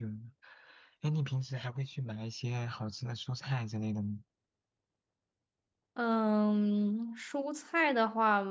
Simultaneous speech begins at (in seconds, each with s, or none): none